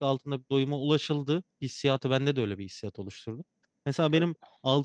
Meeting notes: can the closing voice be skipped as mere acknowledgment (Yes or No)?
Yes